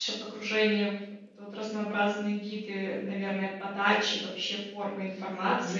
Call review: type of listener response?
taking over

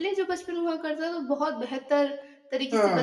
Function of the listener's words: taking over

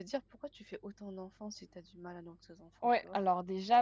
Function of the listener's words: taking over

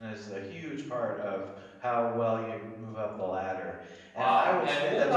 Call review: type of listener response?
taking over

